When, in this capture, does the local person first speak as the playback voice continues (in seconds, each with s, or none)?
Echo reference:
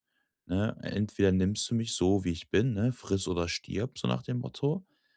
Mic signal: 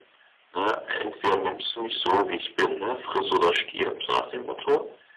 none